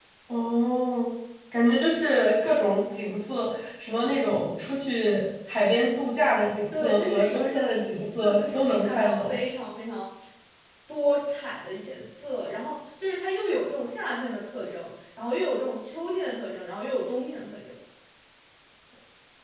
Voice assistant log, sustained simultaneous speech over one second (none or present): present